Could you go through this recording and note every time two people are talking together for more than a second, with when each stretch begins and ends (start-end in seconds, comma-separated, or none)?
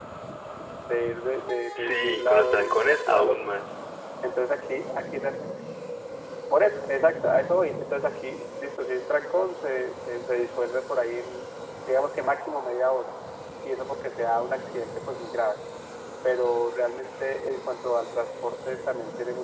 1.8-3.4